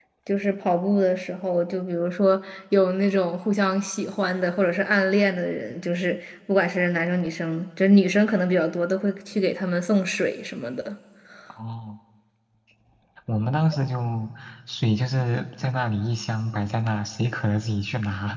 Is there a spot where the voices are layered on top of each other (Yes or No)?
No